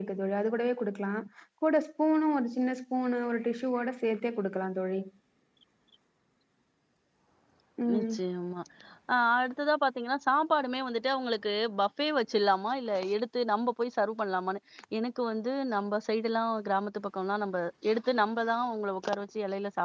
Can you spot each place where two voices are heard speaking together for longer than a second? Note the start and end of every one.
none

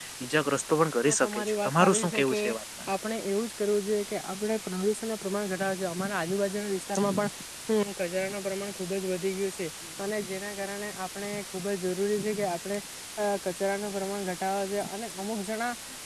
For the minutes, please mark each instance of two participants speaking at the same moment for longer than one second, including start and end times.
1.1-2.4

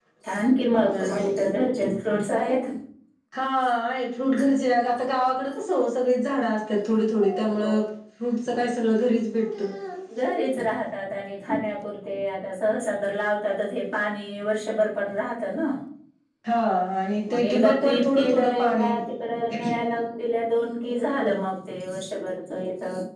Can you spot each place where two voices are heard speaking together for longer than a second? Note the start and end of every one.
17.3-18.9

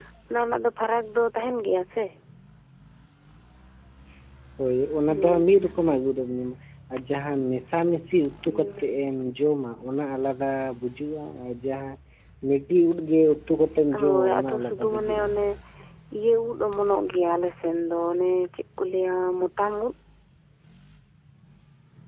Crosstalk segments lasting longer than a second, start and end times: 14.0-15.2

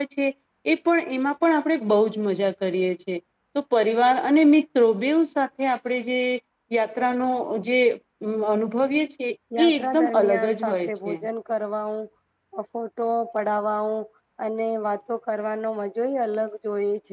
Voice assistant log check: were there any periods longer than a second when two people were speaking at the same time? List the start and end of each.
9.6-11.1

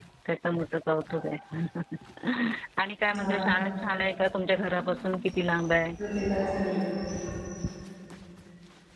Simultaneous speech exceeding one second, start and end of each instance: none

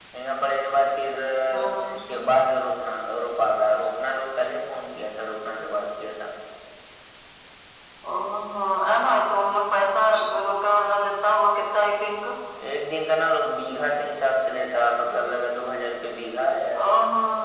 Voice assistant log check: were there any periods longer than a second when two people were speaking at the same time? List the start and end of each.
none

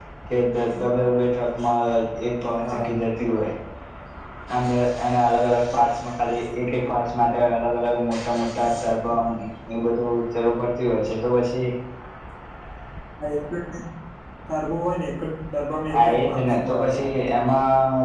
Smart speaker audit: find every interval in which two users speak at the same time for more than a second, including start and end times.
15.9-17.2

